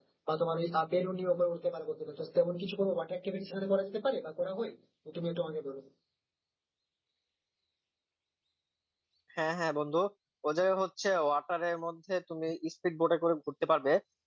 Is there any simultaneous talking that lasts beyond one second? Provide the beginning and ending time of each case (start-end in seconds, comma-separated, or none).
none